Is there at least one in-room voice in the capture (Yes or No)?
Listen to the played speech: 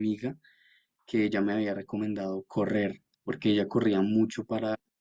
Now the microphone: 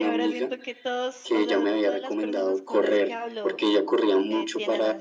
Yes